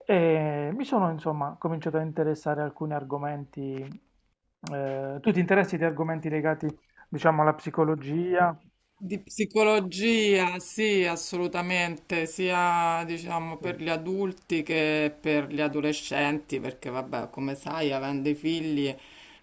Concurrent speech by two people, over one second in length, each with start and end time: none

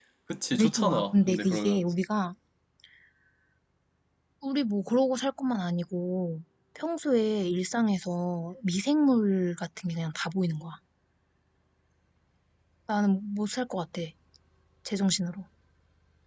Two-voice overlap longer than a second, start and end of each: 0.6-1.9

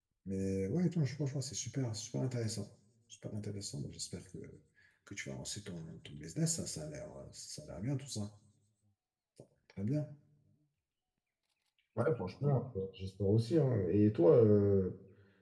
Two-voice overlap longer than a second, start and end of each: none

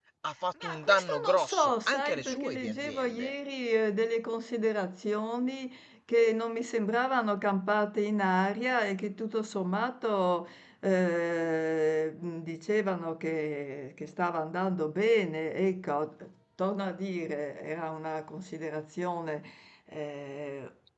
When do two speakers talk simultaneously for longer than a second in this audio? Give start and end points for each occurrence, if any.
0.6-3.3

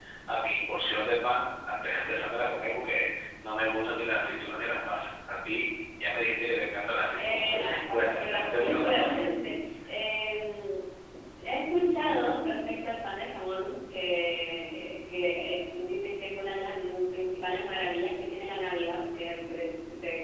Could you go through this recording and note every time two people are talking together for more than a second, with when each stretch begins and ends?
7.2-9.2

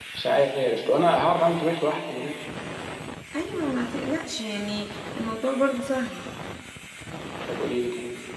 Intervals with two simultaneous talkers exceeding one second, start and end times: none

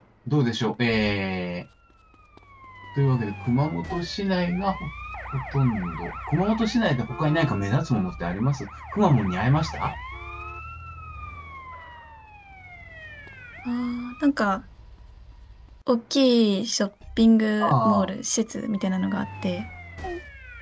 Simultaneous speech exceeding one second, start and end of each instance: none

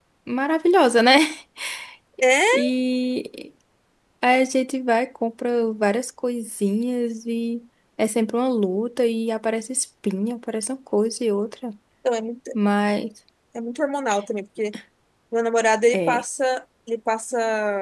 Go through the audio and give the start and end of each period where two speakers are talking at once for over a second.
none

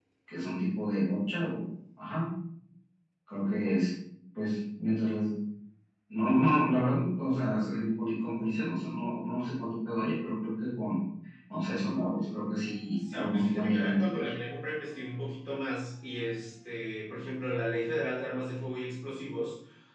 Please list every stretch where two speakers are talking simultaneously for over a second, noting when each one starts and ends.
12.9-14.3

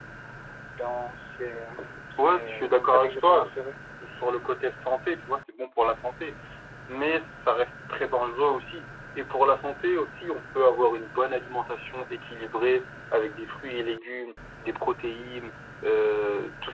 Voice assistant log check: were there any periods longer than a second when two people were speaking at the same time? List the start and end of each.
2.2-3.5

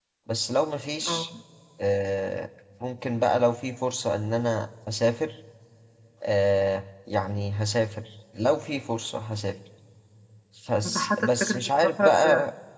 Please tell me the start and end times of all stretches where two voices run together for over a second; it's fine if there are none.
10.8-12.2

